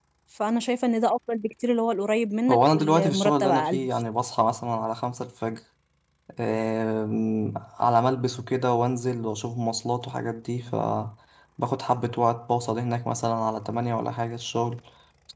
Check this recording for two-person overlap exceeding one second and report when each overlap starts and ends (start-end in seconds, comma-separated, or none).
2.5-3.9